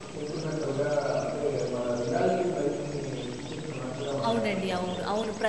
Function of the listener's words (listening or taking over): taking over